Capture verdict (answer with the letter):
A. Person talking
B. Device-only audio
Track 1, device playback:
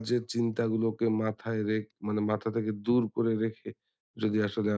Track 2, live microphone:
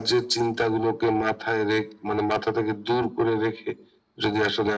B